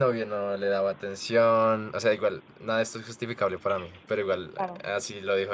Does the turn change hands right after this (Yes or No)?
No